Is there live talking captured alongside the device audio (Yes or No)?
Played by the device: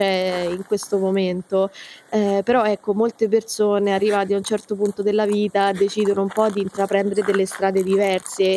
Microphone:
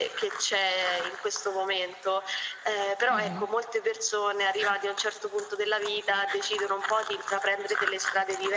Yes